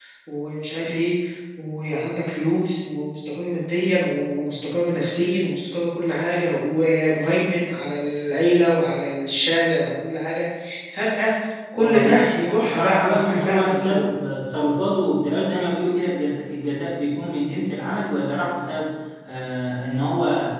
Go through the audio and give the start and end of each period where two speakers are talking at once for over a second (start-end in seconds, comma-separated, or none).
11.8-14.1